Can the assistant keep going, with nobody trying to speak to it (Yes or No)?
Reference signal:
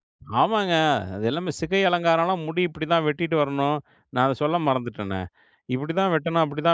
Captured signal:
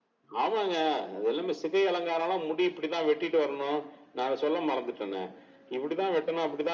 Yes